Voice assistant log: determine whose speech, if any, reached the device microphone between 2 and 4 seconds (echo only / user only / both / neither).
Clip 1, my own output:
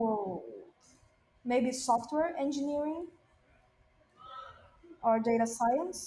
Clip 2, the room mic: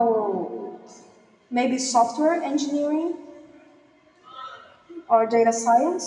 echo only